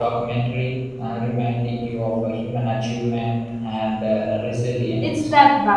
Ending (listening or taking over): taking over